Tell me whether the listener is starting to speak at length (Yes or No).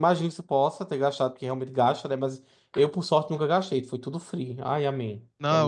Yes